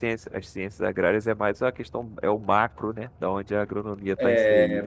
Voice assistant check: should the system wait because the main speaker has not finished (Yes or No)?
No